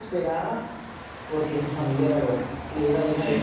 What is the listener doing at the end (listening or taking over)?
listening